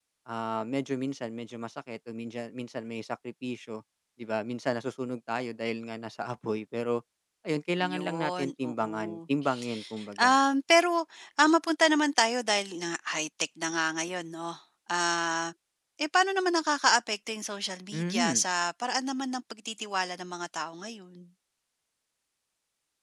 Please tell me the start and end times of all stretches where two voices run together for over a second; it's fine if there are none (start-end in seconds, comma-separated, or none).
7.9-9.2